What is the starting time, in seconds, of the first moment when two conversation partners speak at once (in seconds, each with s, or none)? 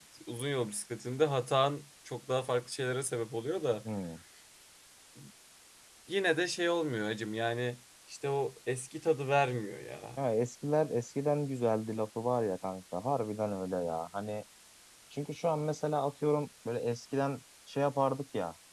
none